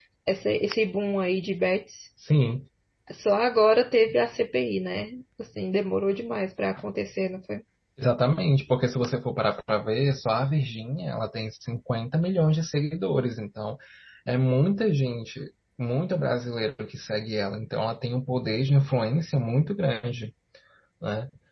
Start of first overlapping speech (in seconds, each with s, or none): none